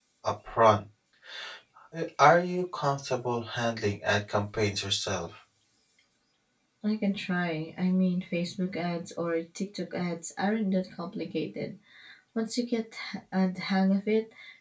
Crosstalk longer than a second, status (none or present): none